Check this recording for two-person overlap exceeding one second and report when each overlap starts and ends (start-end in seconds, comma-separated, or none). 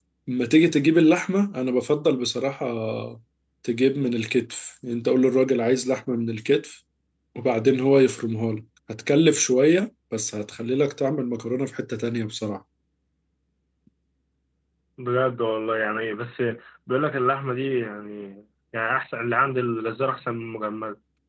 none